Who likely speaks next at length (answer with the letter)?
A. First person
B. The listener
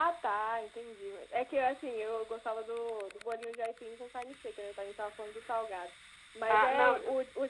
A